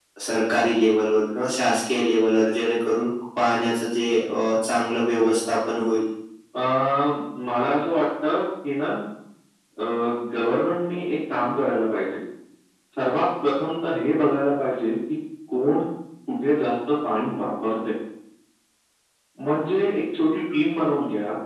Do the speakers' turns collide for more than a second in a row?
No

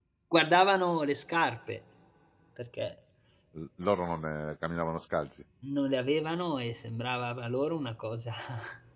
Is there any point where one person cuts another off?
No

